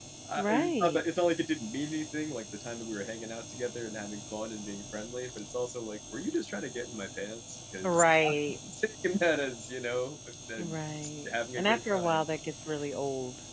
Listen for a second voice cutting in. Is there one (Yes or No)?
Yes